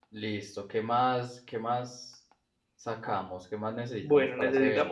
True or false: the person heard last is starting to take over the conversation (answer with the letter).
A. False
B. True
B